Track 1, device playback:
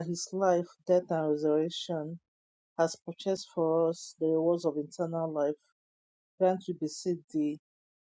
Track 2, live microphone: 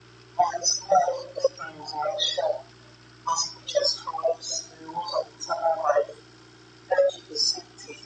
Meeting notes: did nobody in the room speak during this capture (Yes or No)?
Yes